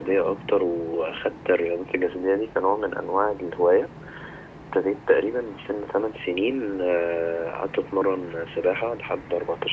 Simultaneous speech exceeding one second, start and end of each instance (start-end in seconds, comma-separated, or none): none